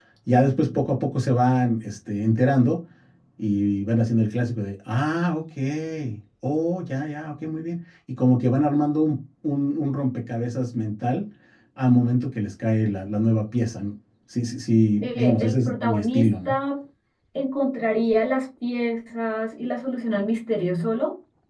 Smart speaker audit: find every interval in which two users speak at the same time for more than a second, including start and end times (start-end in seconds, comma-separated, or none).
15.0-16.6